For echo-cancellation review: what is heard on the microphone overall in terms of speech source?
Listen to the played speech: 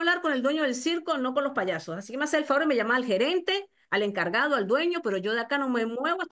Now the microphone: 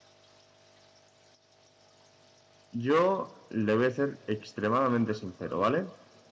user only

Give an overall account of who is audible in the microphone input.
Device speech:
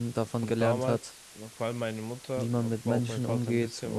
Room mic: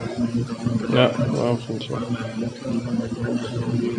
both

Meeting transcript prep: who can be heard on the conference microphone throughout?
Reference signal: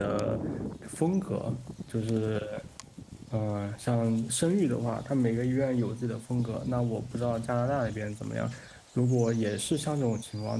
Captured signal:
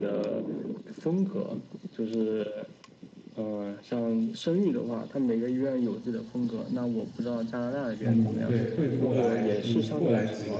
both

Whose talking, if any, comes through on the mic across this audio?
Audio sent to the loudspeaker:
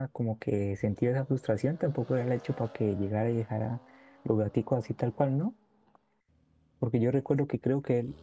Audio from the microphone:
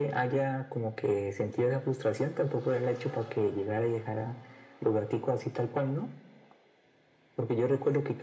echo only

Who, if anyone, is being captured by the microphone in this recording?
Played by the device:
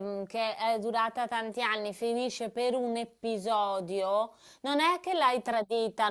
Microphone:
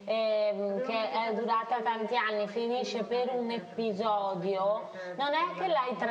both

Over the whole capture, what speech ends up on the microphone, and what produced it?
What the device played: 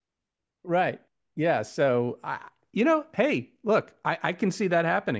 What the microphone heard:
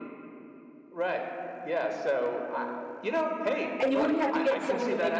both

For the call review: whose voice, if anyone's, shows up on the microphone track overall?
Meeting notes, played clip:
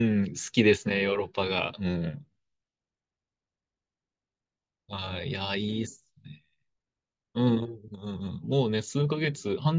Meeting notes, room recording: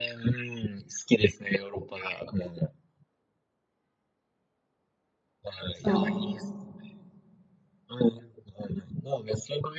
both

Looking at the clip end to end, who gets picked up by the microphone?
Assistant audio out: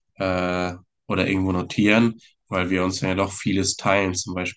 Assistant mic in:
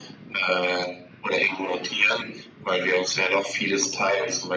echo only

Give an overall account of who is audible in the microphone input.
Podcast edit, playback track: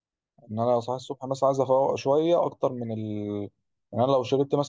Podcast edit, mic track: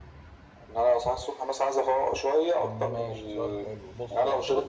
both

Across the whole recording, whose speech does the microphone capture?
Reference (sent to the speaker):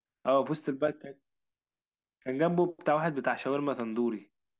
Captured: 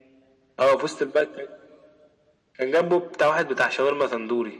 echo only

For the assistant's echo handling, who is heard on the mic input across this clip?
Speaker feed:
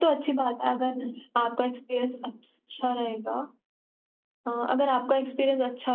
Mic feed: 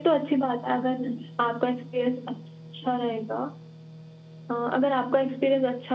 echo only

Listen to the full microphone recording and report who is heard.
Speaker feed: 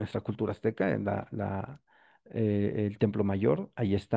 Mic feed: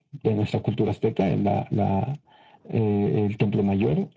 echo only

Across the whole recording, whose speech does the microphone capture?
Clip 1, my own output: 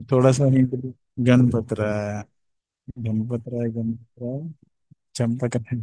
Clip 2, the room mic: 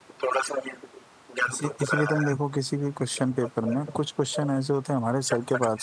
both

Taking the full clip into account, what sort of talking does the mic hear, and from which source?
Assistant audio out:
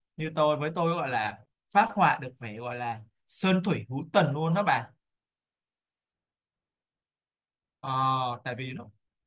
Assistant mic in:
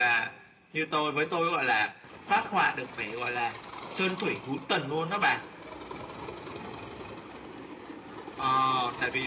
echo only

